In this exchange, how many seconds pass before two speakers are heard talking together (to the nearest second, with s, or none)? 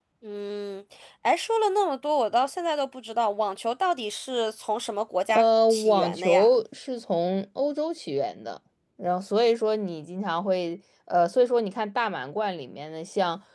5 s